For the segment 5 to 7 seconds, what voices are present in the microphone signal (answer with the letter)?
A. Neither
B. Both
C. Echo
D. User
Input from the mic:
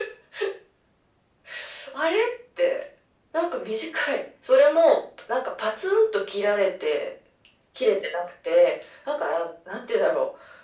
C